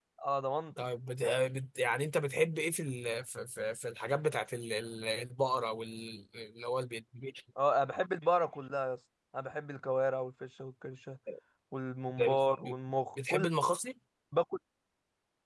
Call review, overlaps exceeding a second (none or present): none